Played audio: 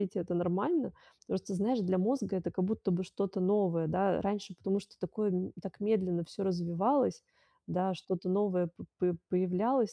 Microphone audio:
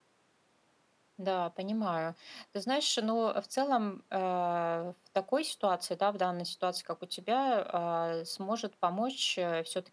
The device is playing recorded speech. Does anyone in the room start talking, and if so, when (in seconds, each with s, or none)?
1.2 s